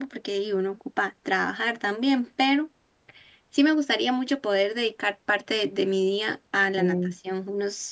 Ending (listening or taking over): listening